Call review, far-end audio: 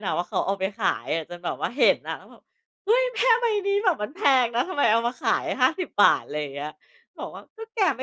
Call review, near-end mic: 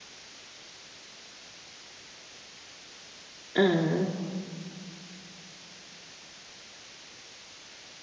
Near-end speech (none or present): present